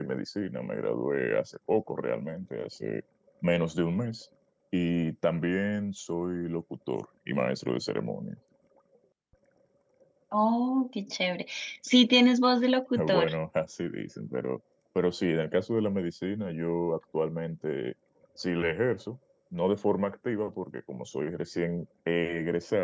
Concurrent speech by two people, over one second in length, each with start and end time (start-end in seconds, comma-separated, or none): none